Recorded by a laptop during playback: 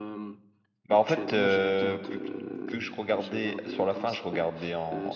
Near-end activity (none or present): present